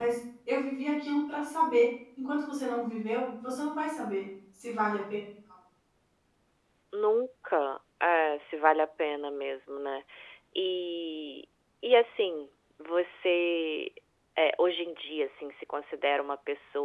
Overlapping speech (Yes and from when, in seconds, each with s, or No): No